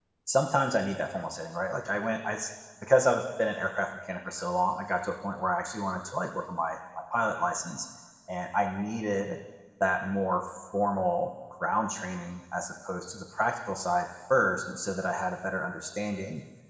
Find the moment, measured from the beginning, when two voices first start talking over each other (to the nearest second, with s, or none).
none